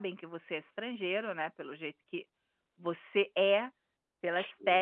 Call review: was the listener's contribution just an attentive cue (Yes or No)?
Yes